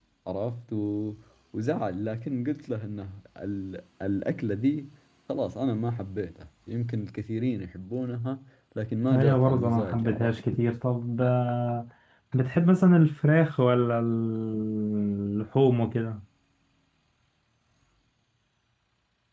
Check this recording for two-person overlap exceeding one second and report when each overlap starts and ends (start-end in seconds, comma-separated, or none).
9.1-10.4